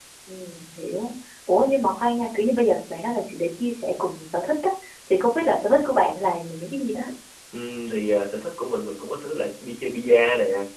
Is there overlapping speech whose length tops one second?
No

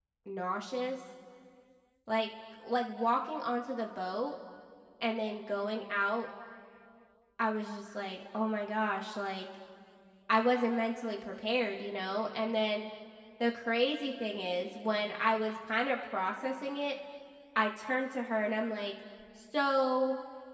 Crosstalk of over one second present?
No

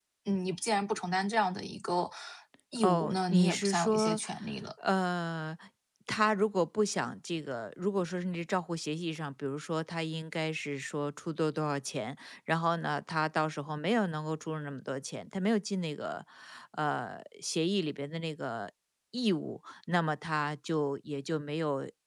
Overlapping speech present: Yes, from 2.8 s

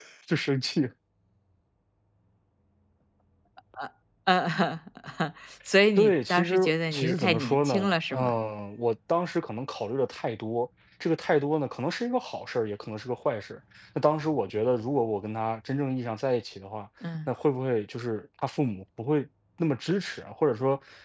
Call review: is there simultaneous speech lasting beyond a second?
Yes, from 6.0 s

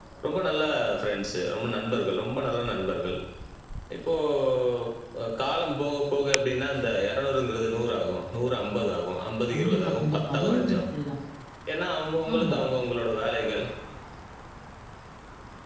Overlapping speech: Yes, from 9.5 s

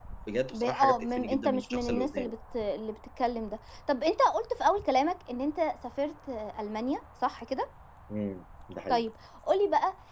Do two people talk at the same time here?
Yes, from 0.5 s

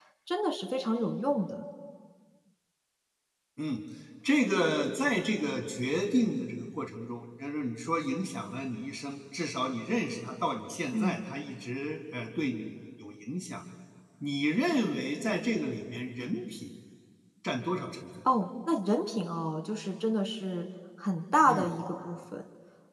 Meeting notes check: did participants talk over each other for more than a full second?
No

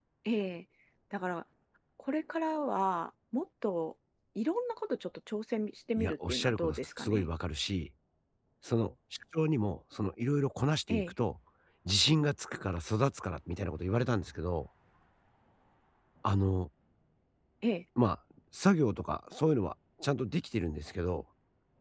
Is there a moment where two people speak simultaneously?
Yes, from 6.0 s

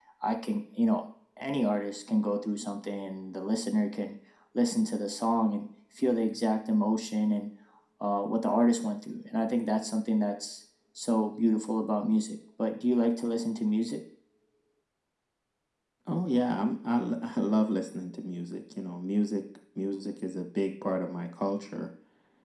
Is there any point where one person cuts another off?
No

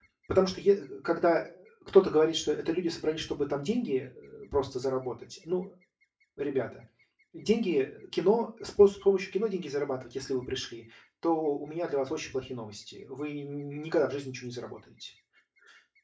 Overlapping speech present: No

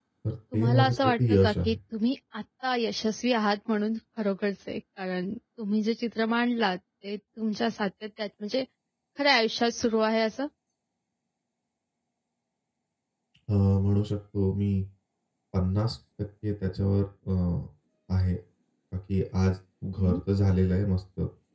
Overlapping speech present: Yes, from 0.5 s

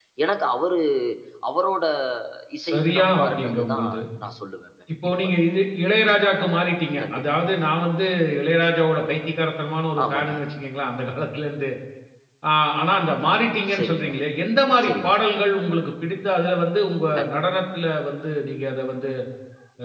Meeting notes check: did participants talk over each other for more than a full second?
Yes, from 2.7 s

